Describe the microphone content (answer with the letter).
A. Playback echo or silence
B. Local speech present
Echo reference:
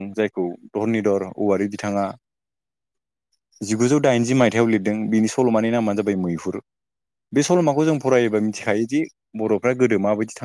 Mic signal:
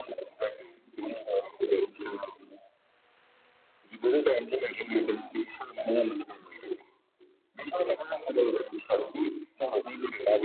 B